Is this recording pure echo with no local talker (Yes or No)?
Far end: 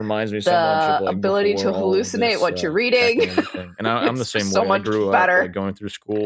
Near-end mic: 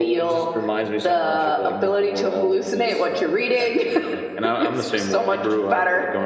Yes